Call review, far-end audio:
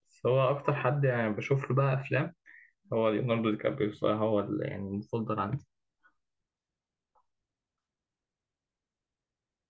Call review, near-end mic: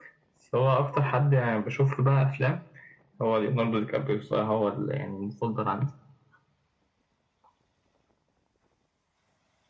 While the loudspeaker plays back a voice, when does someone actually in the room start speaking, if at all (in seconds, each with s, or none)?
none